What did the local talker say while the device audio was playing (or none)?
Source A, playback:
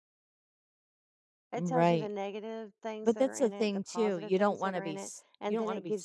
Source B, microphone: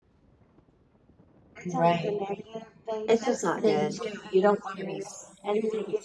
it's just not good.